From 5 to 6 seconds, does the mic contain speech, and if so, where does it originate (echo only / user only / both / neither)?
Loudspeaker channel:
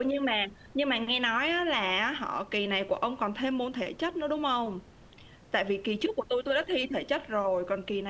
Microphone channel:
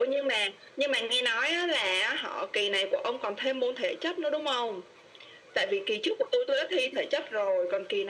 echo only